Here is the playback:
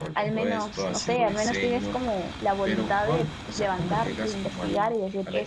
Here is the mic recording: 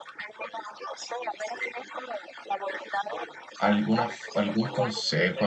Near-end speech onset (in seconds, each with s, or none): 3.6 s